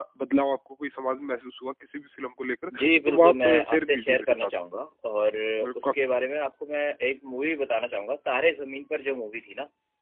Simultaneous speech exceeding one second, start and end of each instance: 3.1-4.5

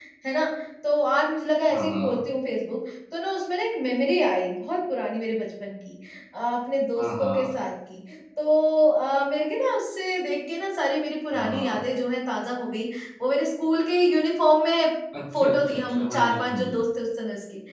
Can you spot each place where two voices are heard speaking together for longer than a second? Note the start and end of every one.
15.3-16.8

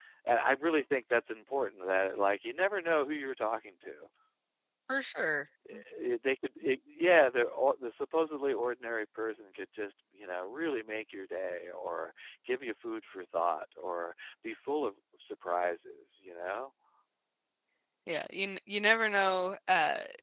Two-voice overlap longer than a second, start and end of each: none

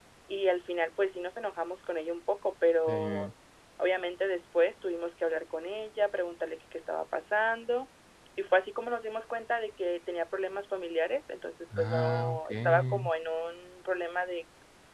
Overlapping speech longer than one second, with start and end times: 11.8-13.1

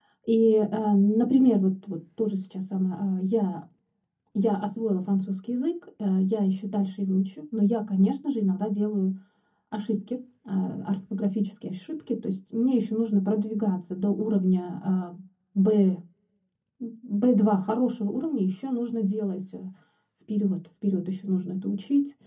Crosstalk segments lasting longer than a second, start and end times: none

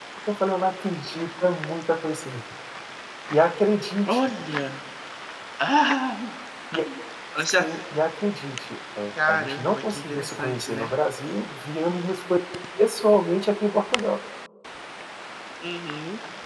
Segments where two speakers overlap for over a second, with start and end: 9.2-10.9

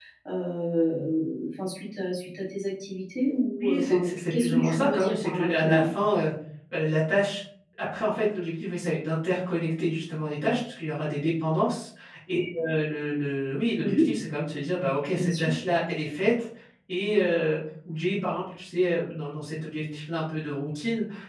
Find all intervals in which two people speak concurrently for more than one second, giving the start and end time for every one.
3.6-5.9

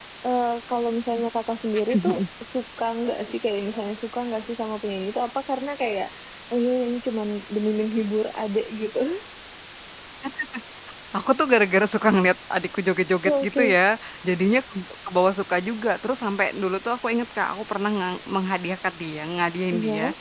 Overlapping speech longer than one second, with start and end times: none

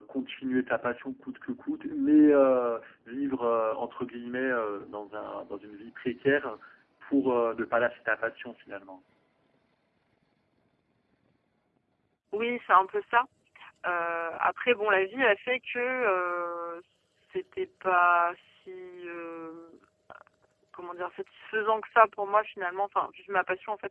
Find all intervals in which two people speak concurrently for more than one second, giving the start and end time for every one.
none

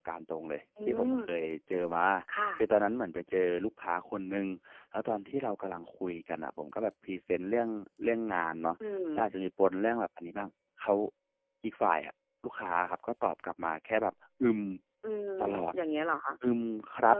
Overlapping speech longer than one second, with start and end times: none

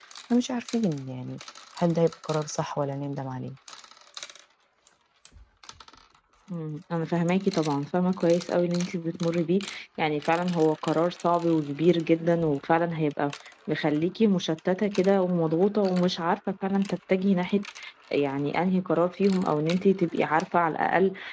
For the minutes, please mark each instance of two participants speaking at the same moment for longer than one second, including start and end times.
none

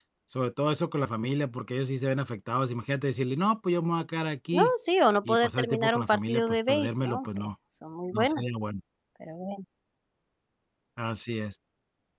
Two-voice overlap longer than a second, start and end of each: 5.2-7.5

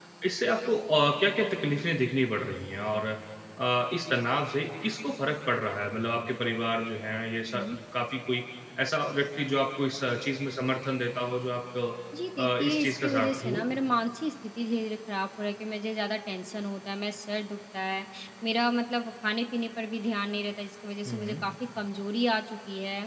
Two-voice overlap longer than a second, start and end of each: 12.4-13.6

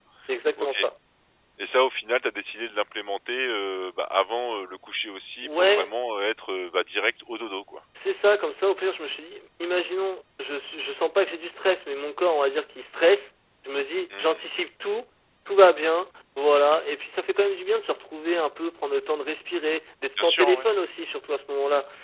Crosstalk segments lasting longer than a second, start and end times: none

